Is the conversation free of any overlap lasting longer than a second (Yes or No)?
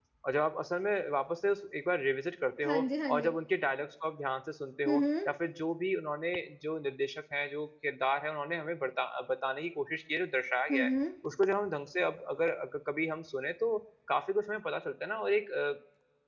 Yes